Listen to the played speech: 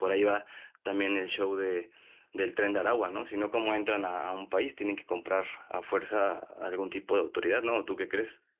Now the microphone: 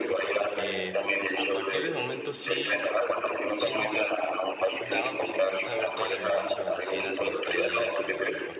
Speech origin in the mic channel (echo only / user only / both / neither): both